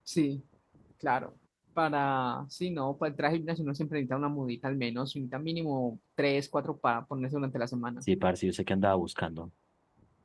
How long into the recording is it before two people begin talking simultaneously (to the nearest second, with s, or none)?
none